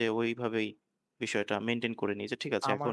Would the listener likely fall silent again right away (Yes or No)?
No